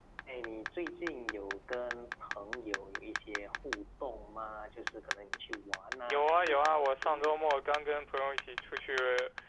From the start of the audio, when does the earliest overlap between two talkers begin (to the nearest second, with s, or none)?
6 s